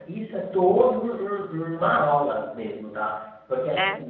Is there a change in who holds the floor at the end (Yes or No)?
No